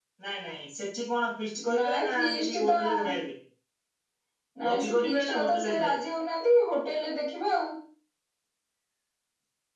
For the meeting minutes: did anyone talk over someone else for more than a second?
Yes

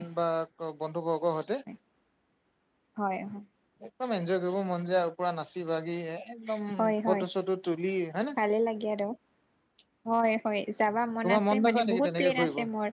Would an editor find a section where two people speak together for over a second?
Yes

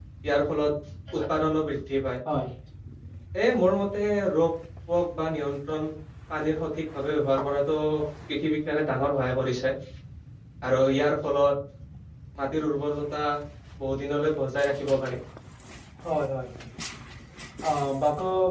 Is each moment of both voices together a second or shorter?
Yes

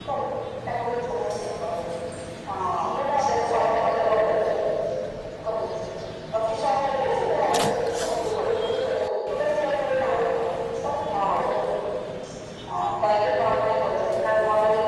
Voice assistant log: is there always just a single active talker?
No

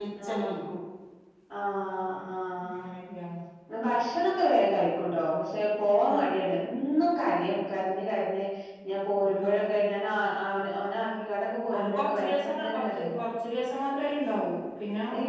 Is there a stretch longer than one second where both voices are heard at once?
Yes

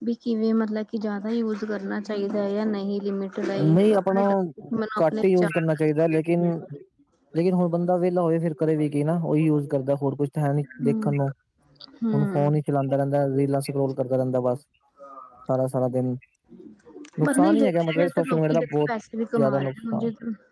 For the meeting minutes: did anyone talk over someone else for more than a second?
Yes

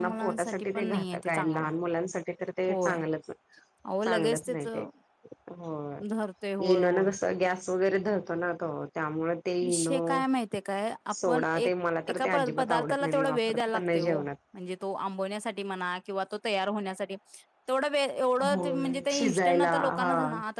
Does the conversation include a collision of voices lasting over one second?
Yes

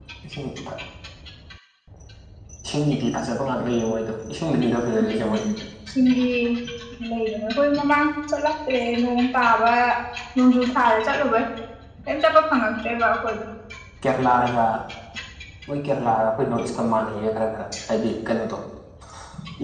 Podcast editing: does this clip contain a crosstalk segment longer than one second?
No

